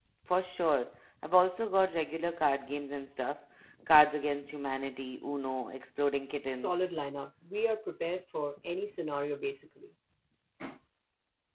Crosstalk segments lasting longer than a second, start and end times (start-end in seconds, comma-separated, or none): none